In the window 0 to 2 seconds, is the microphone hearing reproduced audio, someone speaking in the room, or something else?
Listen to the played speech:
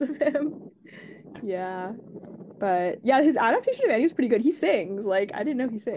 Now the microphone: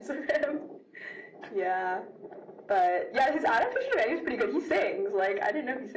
echo only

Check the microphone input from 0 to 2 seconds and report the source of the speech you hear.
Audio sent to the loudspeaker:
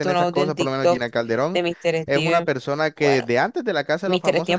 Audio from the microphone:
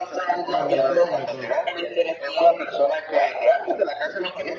both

